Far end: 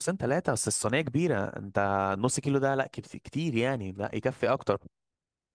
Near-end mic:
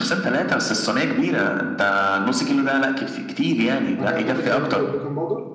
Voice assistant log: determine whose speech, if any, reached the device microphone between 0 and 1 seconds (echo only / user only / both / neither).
echo only